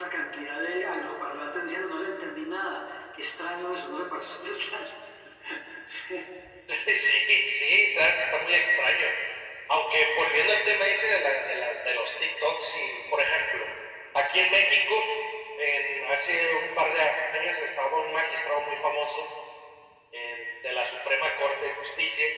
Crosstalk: none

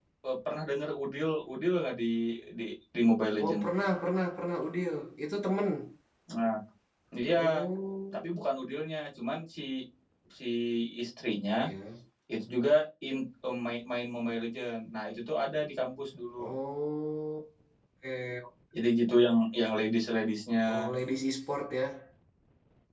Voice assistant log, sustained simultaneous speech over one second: none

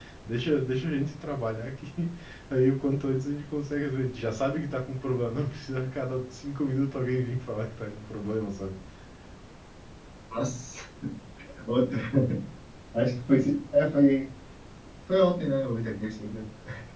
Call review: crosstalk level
none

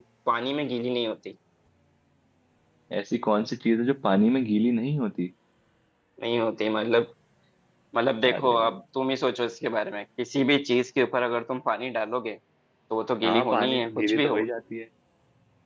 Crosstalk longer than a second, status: present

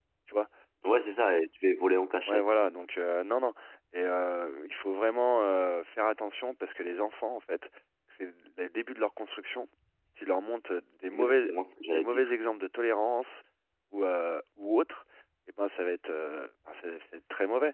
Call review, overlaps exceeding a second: none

